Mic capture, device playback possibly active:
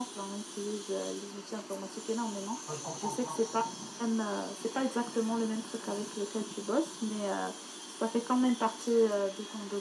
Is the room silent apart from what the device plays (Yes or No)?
No